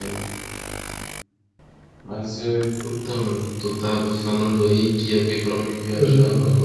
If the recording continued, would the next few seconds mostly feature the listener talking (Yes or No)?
No